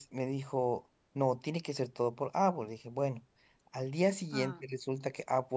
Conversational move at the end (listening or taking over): listening